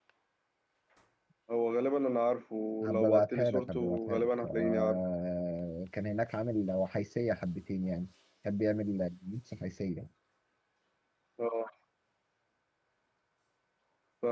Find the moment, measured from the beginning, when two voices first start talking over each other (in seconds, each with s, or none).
2.8 s